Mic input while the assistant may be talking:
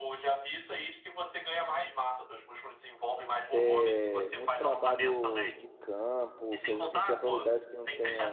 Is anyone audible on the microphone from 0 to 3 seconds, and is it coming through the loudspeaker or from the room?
echo only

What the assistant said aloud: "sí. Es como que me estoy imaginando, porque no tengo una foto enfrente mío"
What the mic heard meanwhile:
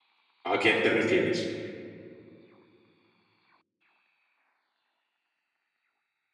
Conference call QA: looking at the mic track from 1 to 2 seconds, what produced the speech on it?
user only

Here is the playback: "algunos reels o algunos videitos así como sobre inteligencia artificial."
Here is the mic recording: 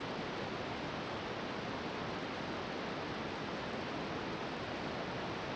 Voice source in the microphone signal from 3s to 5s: neither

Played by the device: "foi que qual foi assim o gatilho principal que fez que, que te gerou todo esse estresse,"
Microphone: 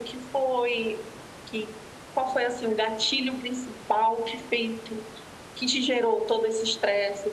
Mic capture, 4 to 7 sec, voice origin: echo only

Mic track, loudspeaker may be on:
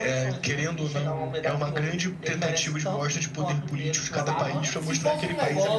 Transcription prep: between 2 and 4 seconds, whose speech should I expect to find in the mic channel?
echo only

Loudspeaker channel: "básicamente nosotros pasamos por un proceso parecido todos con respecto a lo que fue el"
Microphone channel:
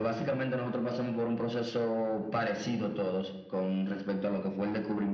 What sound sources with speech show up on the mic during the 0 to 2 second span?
echo only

